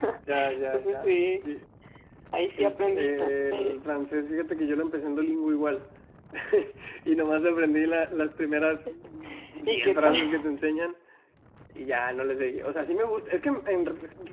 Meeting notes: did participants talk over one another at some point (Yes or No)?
Yes